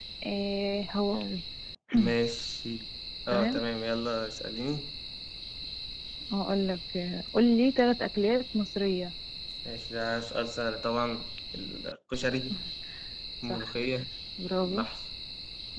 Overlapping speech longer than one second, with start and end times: none

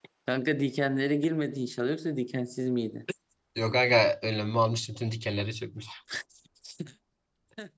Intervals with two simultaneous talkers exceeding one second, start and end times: none

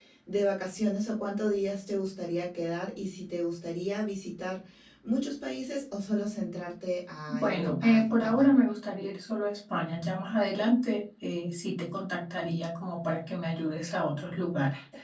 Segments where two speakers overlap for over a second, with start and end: 7.3-8.5

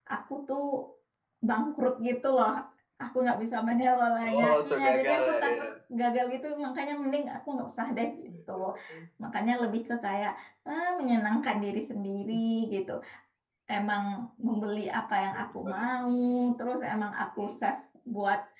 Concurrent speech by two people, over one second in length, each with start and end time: 4.3-5.7

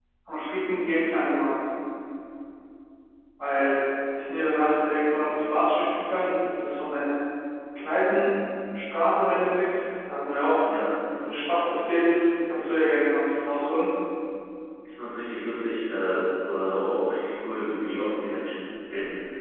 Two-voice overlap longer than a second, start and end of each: none

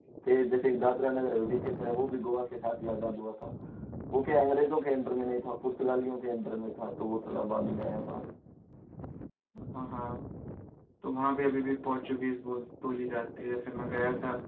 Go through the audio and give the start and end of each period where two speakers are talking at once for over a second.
none

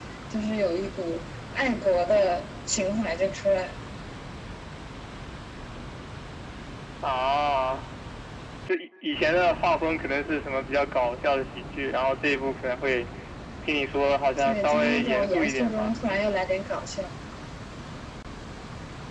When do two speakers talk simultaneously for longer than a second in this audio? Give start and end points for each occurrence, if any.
14.4-15.9

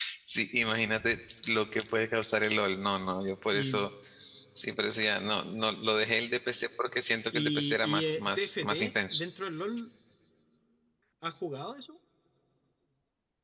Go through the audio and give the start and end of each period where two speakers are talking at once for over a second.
7.3-9.2

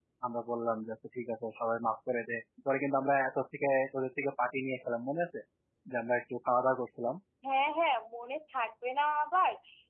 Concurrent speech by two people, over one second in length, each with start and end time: none

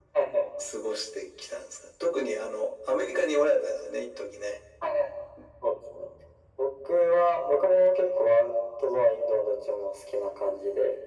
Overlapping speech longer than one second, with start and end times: none

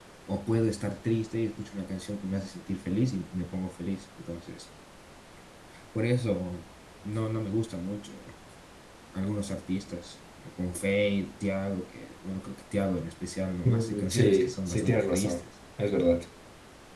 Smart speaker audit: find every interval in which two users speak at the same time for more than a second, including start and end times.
13.6-15.4

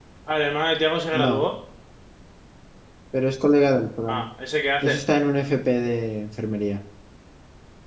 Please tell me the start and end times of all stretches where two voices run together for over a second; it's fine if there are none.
none

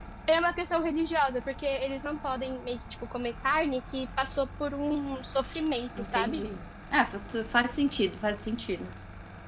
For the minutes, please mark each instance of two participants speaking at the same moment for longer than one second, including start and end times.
none

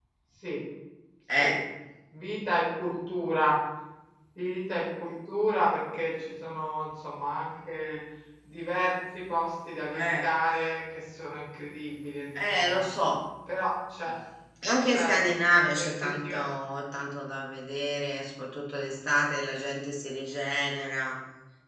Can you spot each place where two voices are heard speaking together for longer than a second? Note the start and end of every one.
14.8-16.4

